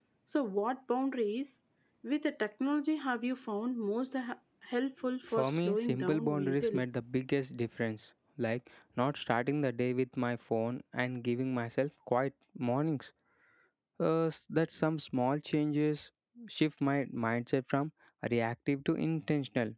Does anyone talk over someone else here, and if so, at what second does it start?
5.4 s

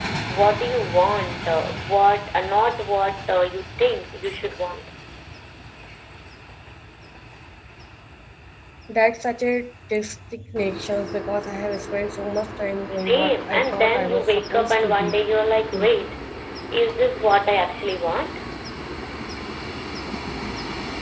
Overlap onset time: 13.1 s

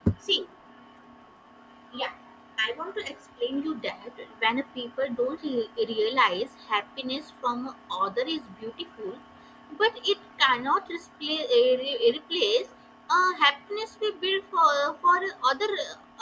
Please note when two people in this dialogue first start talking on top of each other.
none

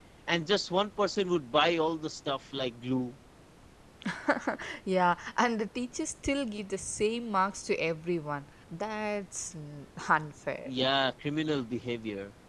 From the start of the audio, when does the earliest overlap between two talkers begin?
none

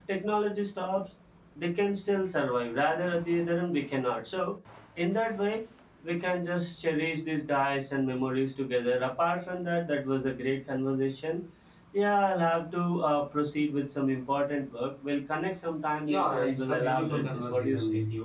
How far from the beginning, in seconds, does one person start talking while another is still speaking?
16.1 s

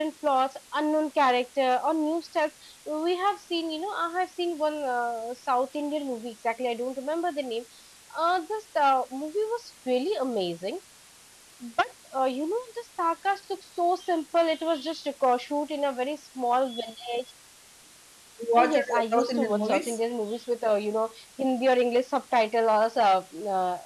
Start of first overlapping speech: 18.6 s

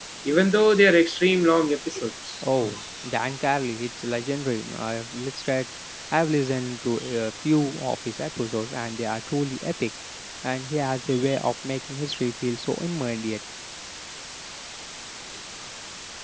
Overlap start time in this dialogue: none

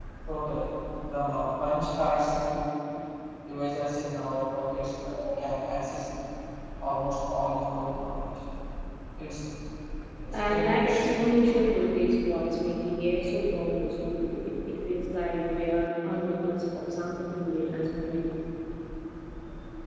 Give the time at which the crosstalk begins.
10.3 s

